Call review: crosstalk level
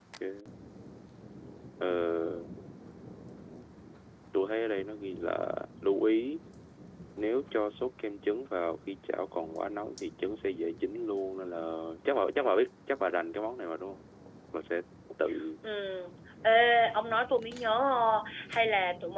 none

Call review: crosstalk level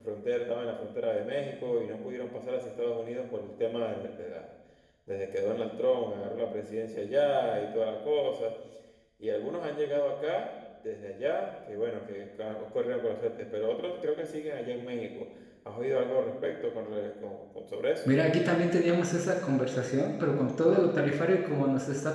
none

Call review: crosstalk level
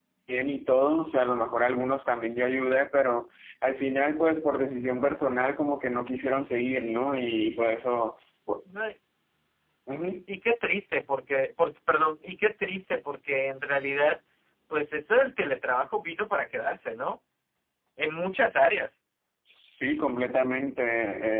none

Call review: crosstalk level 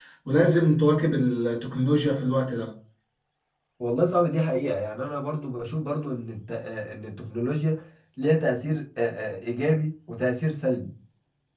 none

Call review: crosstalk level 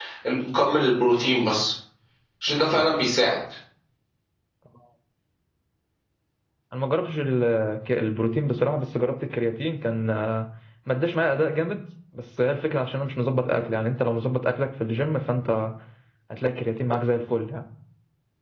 none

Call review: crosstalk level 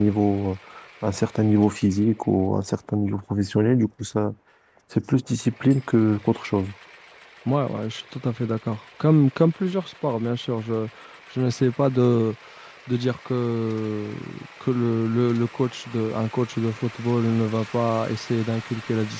none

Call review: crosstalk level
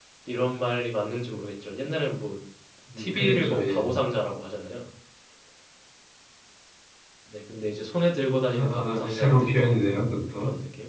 present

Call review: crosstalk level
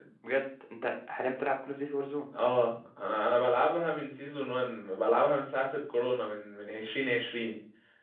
none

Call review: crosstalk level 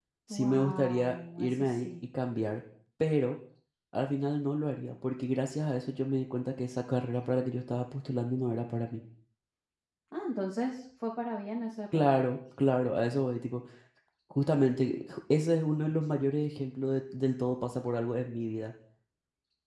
present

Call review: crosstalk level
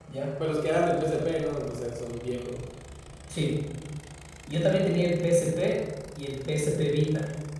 none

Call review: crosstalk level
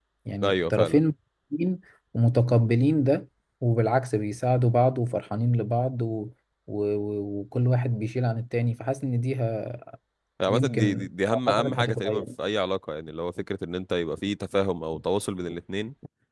present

